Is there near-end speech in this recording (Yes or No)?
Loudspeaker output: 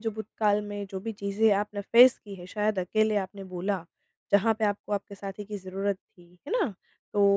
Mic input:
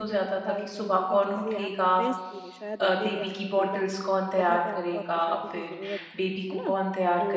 Yes